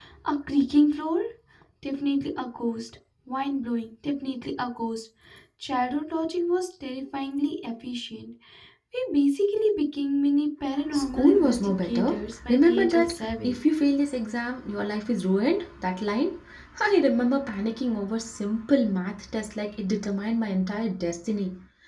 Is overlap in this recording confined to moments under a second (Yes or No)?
No